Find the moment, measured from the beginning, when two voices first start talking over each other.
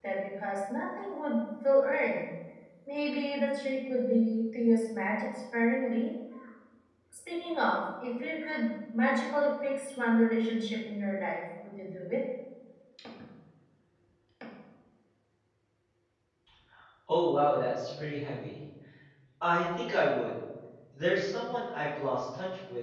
none

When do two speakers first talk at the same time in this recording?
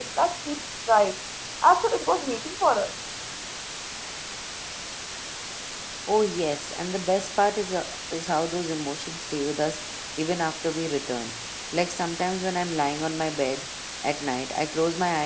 none

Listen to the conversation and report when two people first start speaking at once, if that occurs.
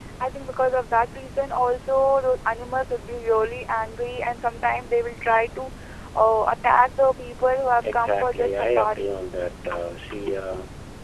7.8 s

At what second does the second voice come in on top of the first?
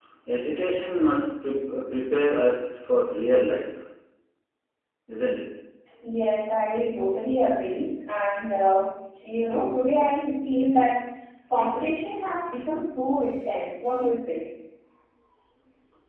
none

